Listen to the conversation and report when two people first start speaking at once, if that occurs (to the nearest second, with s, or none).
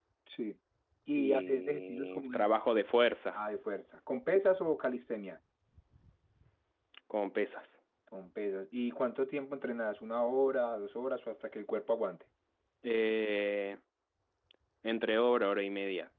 1 s